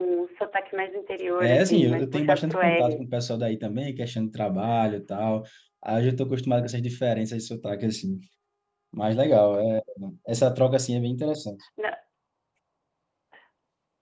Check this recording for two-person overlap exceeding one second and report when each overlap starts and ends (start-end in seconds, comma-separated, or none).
1.4-3.0